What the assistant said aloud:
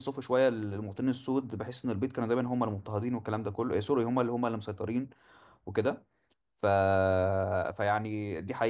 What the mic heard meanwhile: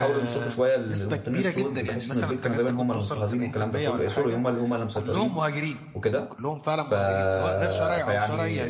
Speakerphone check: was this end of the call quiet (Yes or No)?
No